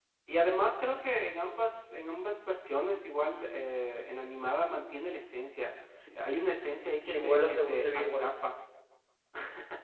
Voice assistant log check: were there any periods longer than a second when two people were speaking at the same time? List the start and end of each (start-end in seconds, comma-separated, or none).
7.1-8.3